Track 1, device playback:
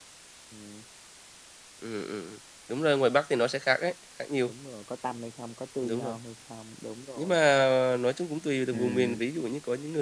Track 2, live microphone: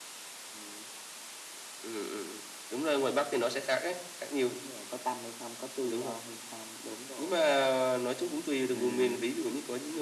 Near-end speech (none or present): none